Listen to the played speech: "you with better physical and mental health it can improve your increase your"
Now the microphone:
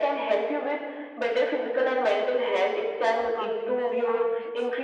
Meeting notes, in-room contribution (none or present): present